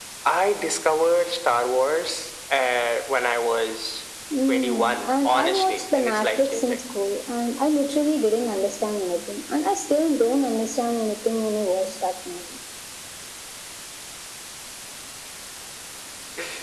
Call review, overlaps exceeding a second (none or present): present